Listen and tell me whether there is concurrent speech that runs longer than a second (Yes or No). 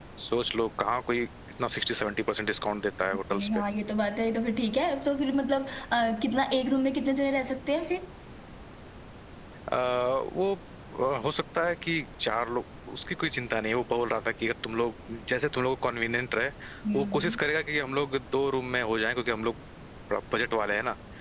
No